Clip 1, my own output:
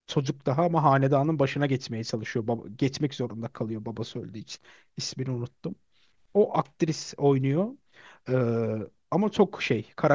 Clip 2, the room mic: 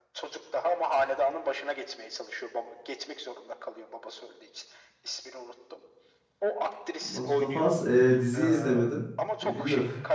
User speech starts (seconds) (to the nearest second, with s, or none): 7 s